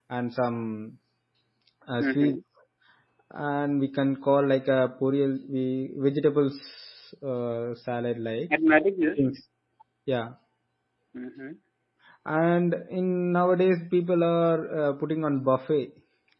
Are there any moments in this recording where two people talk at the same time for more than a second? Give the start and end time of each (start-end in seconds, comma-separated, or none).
none